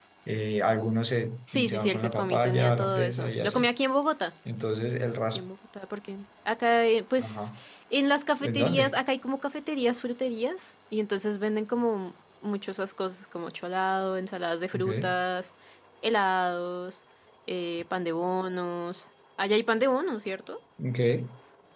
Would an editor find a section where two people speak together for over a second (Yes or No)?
Yes